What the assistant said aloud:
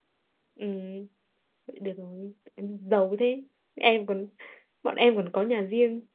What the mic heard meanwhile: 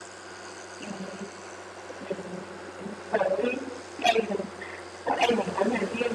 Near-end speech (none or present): none